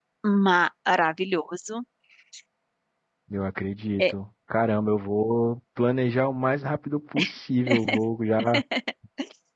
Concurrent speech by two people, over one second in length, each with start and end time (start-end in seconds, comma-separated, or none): none